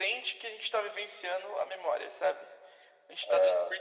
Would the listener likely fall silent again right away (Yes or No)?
Yes